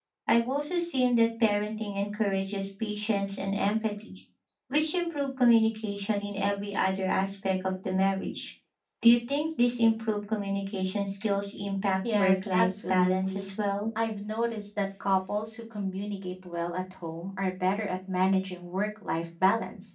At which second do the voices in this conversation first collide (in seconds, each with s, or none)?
12.0 s